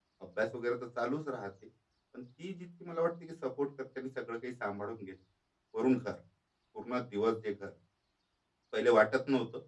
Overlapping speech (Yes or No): No